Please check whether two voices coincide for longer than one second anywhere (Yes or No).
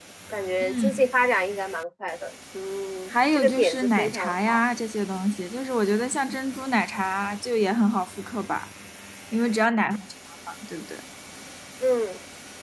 Yes